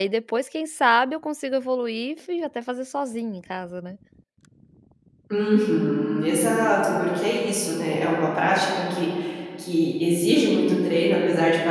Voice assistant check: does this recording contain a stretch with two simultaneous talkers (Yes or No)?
No